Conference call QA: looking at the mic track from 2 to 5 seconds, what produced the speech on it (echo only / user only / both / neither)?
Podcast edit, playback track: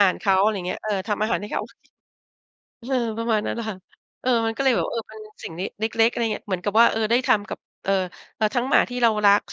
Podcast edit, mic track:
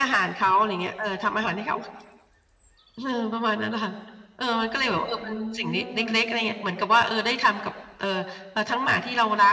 echo only